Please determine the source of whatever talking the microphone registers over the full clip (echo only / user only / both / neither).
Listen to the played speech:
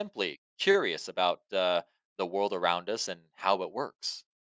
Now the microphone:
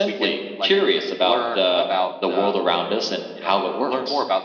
both